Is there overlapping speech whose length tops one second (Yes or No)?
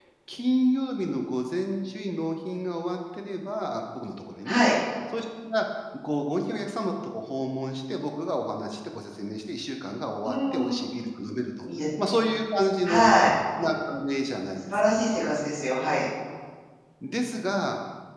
No